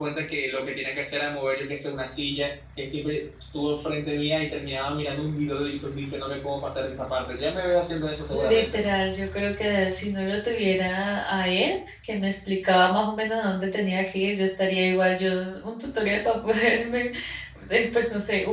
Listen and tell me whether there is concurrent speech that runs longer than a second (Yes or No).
No